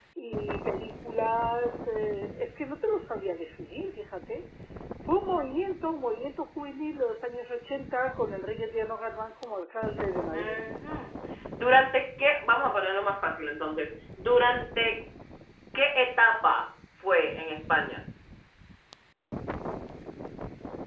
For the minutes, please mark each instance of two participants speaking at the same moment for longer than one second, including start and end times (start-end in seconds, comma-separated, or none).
none